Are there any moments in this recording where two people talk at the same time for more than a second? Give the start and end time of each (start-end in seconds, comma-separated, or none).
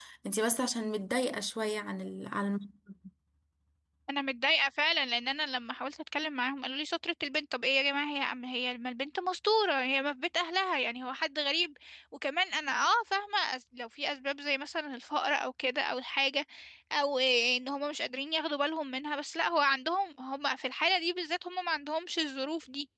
none